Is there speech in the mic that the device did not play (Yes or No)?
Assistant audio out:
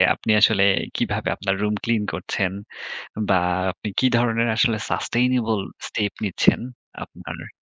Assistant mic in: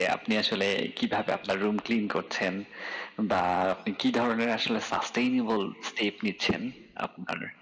No